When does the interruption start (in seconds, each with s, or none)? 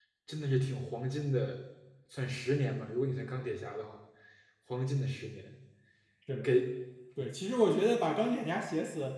none